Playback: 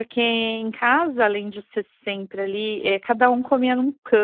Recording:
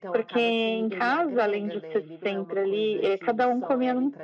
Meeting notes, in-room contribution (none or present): present